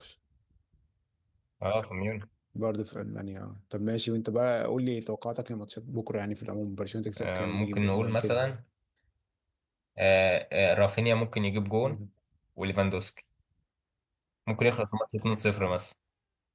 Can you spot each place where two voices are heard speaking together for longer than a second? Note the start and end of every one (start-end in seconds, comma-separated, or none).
7.2-8.6